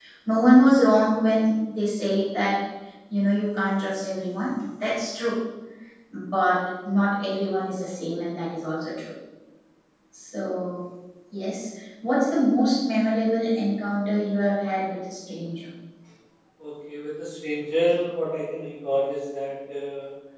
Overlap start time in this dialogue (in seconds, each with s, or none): none